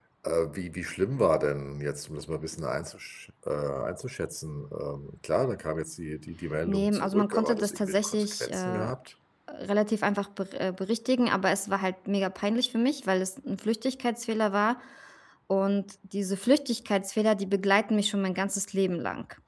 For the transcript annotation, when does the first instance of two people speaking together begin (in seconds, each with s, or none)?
6.7 s